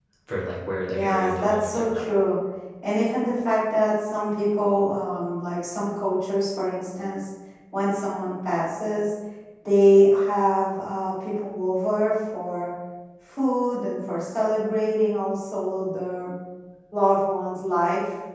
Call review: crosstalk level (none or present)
present